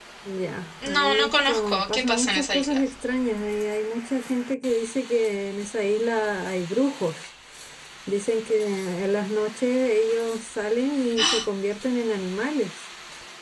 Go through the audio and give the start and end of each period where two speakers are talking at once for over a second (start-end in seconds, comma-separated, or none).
0.8-2.8